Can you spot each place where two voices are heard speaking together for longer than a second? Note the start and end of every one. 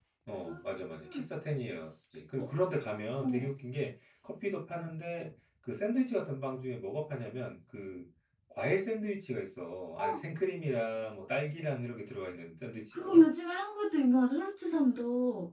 none

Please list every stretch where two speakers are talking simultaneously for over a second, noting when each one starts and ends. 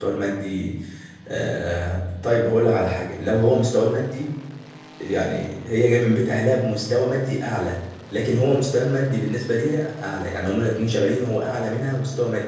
none

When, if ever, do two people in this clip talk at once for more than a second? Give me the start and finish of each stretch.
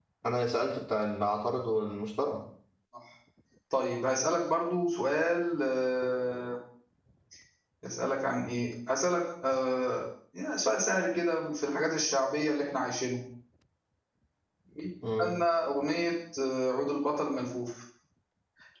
none

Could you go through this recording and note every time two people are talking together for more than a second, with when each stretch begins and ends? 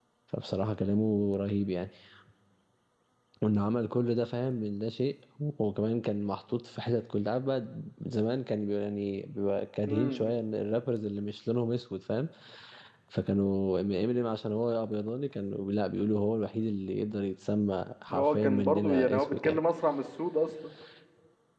18.1-19.6

